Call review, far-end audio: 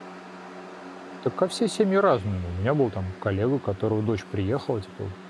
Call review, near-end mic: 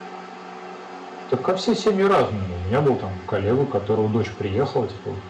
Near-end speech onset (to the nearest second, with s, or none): none